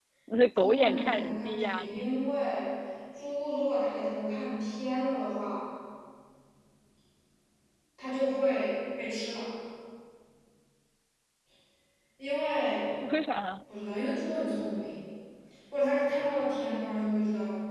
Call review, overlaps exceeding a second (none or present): present